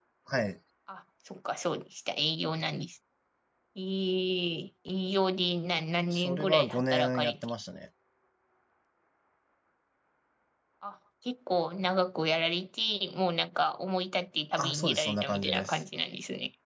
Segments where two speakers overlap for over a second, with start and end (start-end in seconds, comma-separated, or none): 6.1-7.3, 14.6-15.8